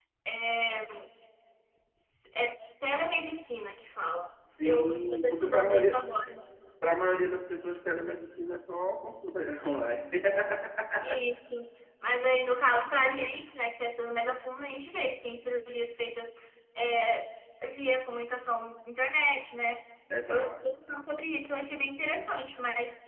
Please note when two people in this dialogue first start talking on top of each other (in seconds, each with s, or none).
4.6 s